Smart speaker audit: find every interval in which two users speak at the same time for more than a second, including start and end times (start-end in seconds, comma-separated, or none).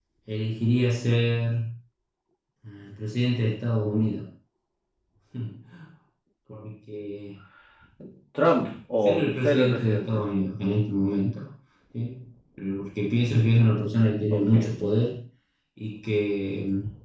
9.0-10.2